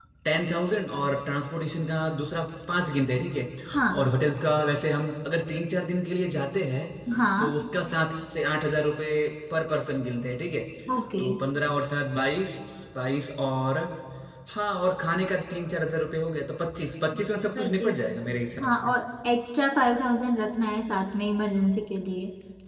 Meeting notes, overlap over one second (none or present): none